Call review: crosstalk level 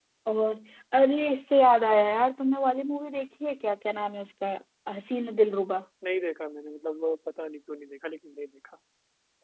none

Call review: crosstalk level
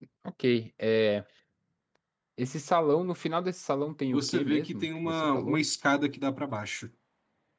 present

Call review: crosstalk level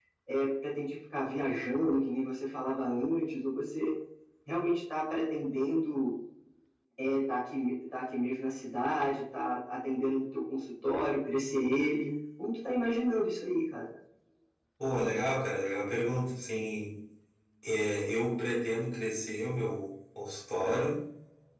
none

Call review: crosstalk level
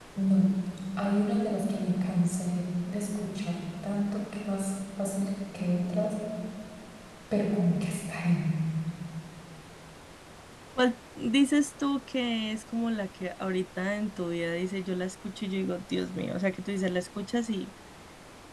none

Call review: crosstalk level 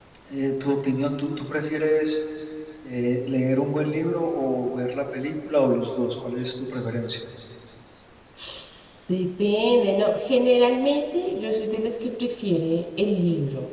none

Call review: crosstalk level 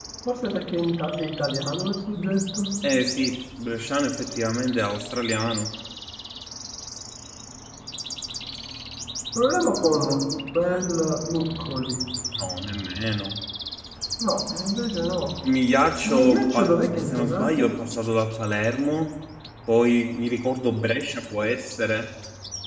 present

